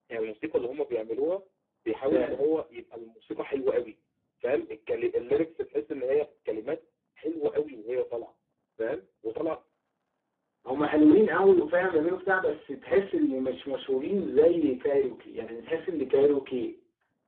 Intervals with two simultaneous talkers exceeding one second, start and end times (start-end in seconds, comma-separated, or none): none